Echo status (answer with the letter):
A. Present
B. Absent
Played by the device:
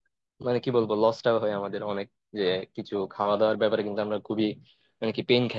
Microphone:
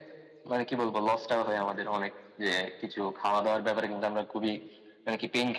A